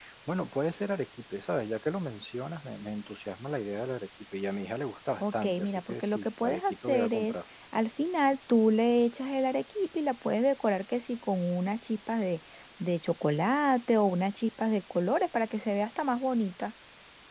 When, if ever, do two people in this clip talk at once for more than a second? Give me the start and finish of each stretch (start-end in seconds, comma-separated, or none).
5.2-7.4